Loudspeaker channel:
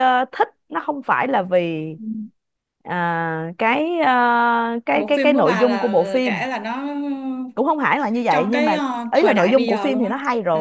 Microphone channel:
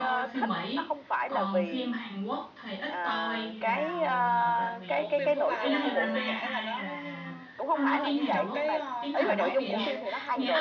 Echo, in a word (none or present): present